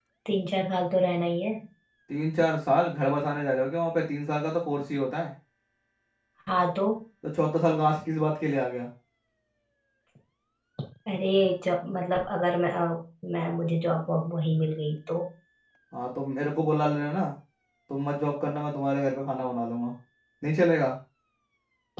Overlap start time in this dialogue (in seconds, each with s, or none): none